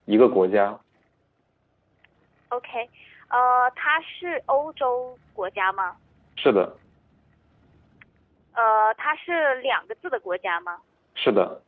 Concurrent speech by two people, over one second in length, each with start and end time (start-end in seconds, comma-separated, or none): none